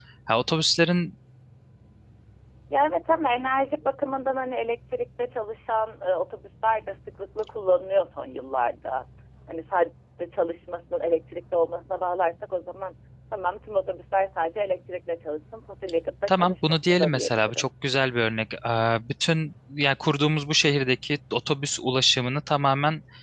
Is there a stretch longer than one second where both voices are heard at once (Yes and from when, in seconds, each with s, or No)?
Yes, from 16.3 s